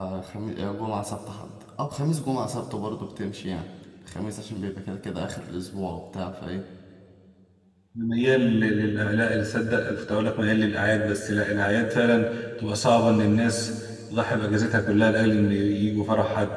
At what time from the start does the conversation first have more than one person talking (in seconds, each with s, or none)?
none